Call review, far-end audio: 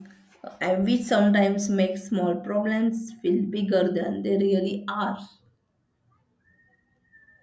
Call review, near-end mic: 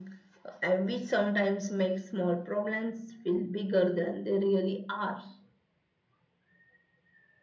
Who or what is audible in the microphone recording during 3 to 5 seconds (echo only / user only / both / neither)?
echo only